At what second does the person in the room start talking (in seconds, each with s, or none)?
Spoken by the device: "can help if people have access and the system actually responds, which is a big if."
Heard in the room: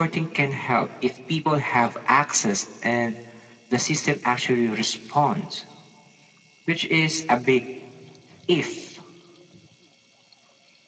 none